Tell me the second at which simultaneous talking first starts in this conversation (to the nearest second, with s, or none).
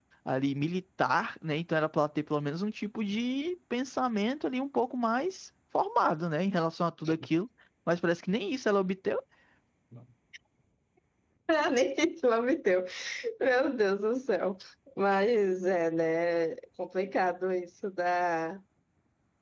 none